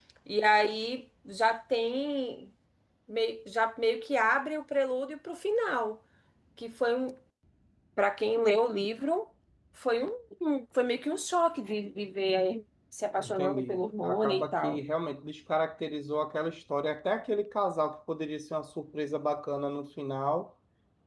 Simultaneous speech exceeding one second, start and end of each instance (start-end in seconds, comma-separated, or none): 13.2-14.8